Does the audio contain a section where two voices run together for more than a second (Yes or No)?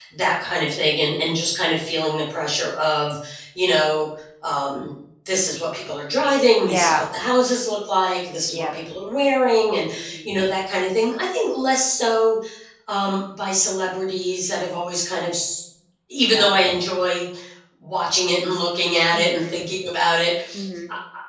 No